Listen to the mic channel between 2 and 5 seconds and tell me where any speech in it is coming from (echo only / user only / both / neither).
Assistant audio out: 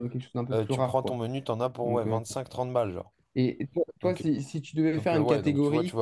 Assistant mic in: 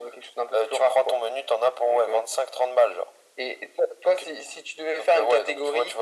echo only